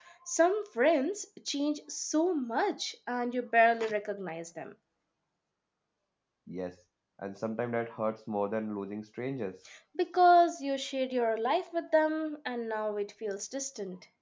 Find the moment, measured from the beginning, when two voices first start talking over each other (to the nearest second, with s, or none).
none